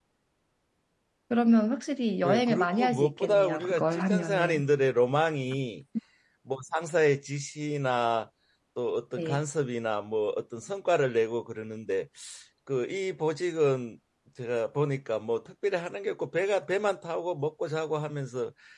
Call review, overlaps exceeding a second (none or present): present